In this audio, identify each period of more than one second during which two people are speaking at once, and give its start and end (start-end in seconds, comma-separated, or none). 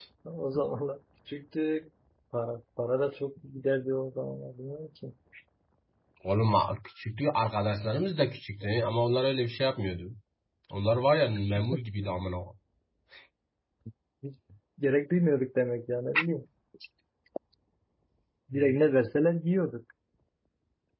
none